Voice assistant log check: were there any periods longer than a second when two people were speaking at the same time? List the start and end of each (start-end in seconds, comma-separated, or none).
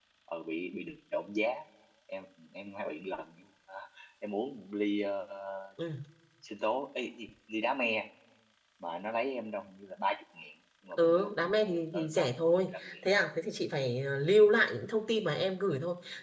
11.0-13.0